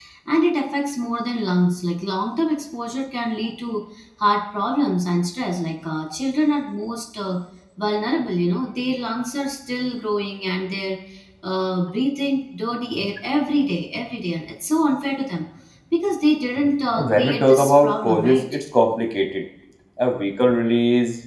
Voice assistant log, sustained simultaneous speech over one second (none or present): present